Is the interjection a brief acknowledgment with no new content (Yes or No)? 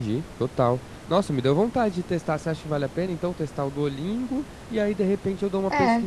Yes